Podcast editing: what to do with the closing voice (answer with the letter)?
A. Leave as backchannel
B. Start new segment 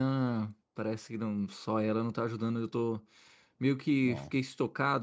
A